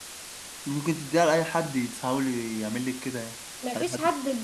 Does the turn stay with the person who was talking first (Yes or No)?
No